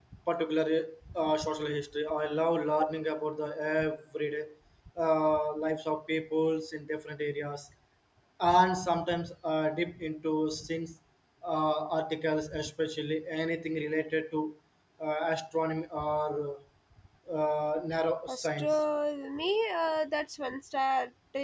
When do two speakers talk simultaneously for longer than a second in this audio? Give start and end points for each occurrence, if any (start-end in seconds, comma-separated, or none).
none